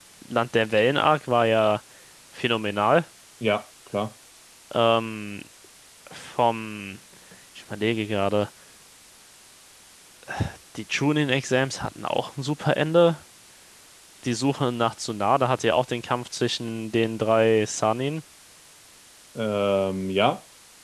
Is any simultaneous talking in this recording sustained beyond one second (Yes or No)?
No